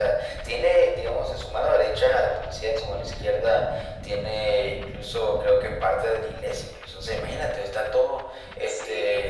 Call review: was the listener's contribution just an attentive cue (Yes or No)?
No